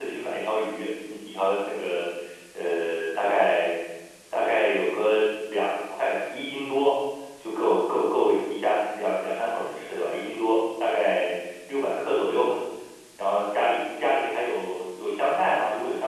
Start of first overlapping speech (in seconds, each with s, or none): none